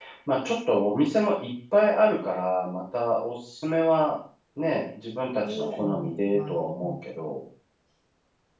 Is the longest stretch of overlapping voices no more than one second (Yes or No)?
No